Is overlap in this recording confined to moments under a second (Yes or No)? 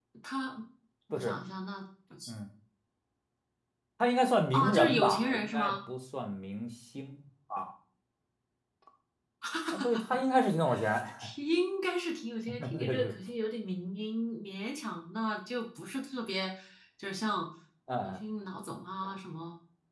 No